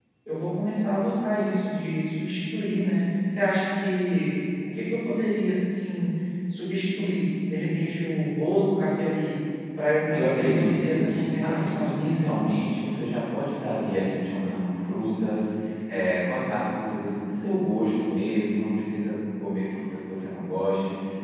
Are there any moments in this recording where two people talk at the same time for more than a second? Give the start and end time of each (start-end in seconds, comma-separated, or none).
10.1-12.0